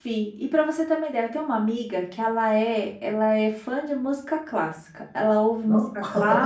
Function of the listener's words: listening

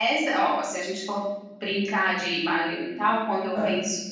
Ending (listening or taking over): listening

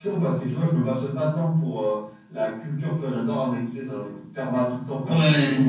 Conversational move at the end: listening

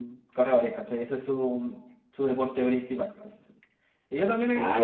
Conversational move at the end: listening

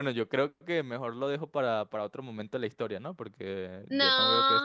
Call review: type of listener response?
taking over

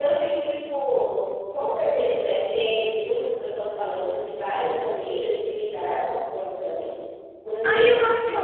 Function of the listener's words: taking over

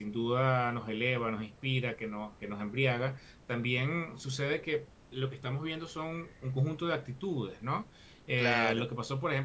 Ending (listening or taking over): listening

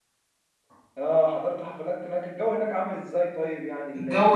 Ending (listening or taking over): taking over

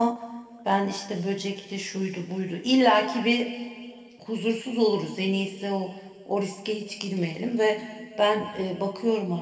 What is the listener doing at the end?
listening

